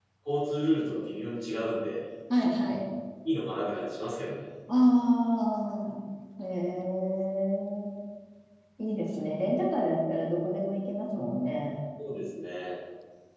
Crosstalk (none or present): none